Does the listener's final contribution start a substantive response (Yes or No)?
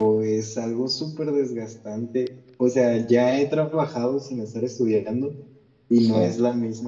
No